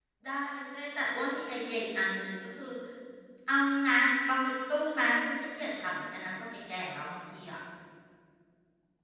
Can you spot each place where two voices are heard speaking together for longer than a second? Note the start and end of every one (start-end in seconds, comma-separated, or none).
none